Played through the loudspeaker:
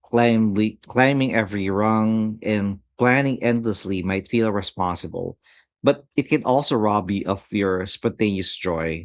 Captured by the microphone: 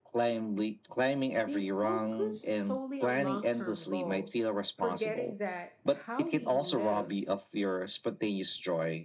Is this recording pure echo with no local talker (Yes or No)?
No